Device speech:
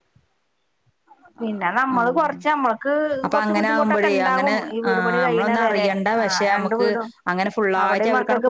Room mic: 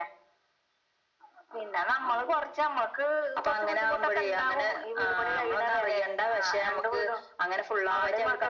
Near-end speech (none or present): none